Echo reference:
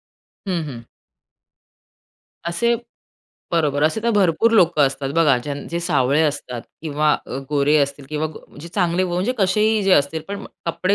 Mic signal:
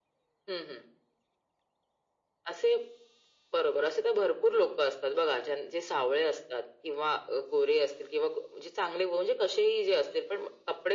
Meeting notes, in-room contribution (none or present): none